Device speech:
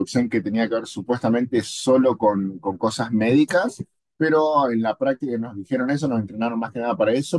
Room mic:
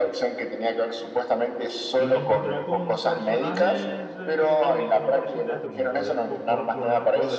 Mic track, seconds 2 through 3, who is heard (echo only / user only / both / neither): both